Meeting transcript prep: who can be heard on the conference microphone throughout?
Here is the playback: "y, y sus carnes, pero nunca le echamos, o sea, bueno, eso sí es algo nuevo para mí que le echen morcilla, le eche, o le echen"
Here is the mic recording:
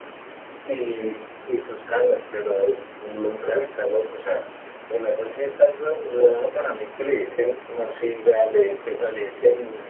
echo only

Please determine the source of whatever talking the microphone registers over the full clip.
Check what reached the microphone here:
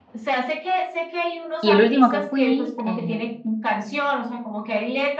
both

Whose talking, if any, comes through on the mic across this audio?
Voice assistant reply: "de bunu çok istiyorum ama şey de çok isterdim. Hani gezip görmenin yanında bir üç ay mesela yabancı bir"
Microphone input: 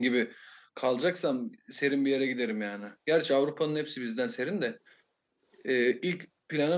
user only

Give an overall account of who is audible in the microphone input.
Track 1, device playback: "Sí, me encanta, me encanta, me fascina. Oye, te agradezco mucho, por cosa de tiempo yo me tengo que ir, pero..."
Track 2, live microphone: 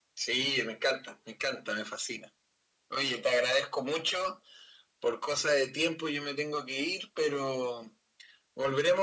echo only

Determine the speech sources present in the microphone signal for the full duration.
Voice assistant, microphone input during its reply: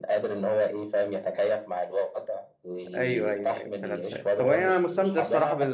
both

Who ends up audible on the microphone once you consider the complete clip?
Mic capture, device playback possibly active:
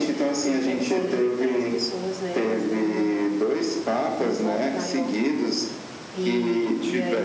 both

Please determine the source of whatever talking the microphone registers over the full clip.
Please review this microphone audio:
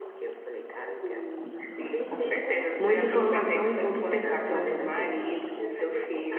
both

